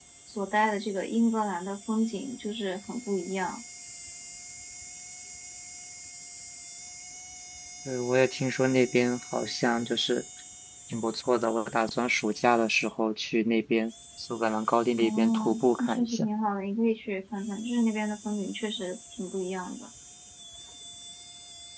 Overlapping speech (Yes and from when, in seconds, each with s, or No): Yes, from 15.0 s